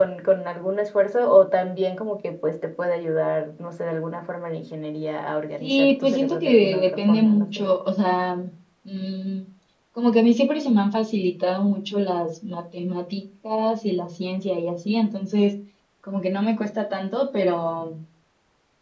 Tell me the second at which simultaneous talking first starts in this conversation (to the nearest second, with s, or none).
6 s